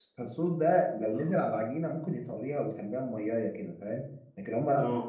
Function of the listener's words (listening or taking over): listening